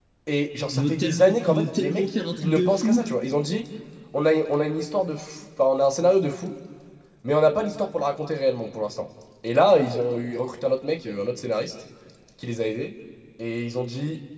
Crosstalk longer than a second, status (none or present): present